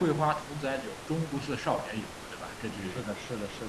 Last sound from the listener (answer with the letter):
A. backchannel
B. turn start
B